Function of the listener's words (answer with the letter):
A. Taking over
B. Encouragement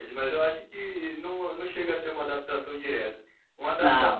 B